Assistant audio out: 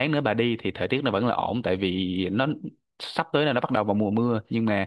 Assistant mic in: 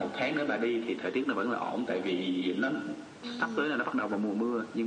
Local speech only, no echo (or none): ừ